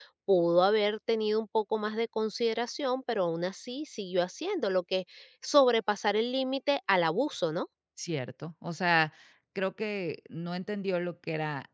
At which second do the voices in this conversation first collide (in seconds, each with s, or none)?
none